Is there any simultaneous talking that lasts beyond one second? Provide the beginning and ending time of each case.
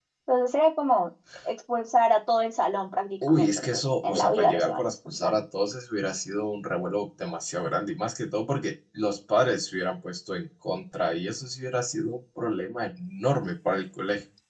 3.2-5.3

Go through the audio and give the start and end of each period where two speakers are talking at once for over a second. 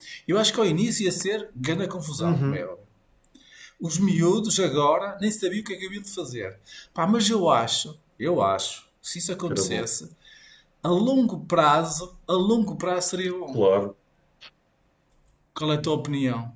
none

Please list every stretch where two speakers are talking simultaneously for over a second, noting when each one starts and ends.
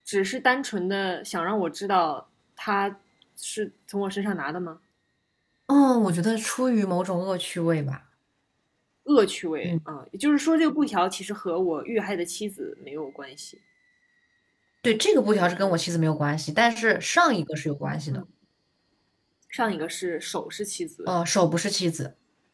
none

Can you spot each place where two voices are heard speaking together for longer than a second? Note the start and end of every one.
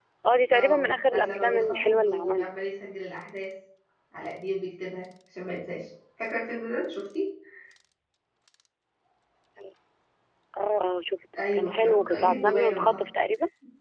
0.5-2.6, 11.5-13.0

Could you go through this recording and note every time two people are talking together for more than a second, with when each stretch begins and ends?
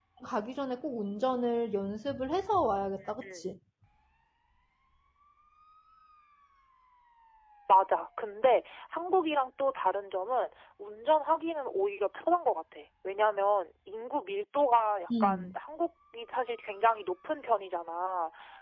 none

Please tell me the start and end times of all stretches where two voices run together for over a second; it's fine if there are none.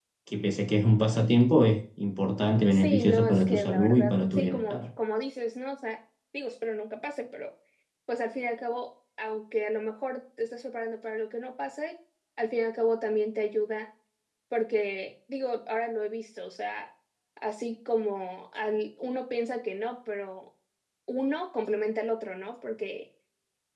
2.7-4.8

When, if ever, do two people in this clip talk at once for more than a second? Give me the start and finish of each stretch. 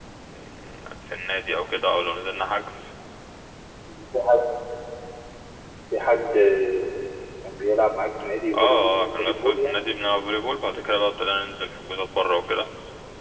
8.6-9.8

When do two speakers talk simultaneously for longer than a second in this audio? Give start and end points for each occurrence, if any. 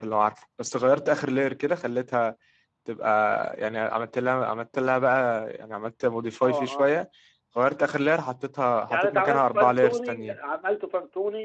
8.9-10.4

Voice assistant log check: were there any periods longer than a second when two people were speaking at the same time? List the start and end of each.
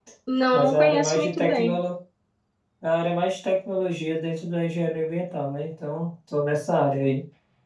0.5-1.8

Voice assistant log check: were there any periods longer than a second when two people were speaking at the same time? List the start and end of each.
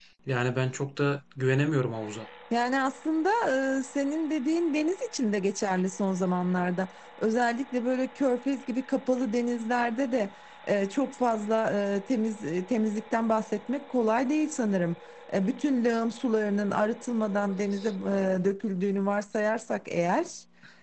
none

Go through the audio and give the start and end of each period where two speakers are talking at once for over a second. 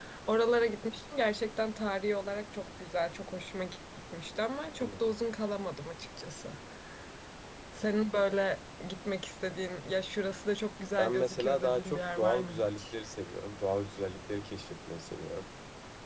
11.0-12.9

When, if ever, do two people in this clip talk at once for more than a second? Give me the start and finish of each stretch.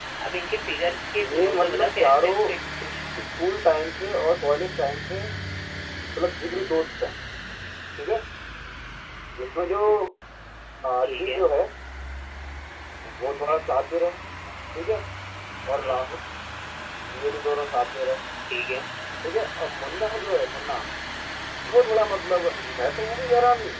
1.2-2.5

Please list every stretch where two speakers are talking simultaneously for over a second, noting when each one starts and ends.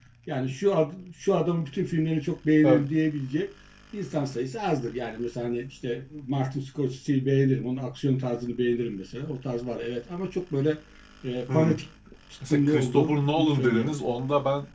12.5-13.9

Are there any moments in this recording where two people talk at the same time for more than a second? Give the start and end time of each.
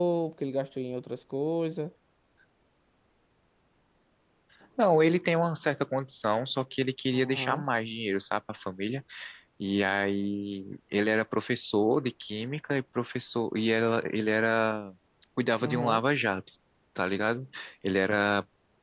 none

